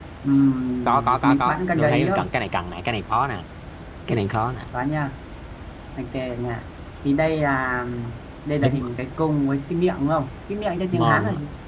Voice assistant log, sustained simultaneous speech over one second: present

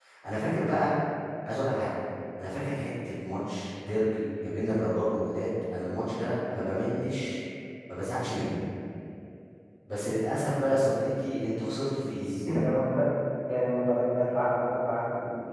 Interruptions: none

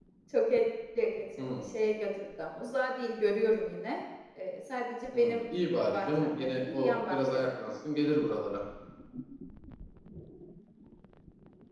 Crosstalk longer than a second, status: present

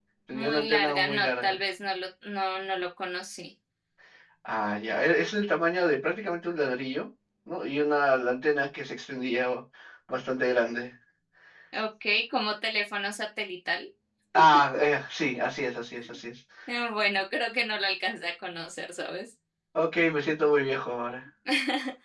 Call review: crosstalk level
present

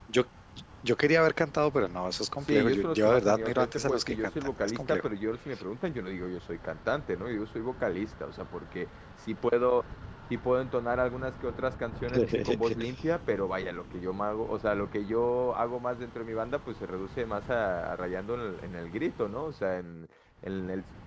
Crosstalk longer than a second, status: present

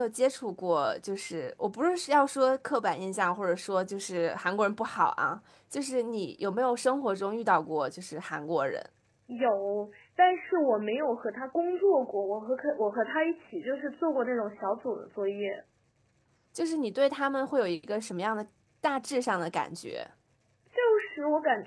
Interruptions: none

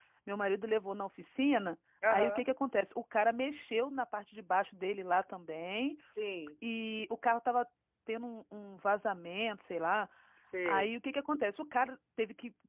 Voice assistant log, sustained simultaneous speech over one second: none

